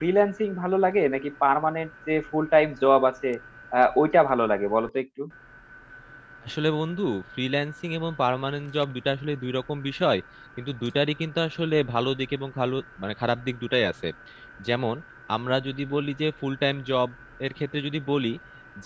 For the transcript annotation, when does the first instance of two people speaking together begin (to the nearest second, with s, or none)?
none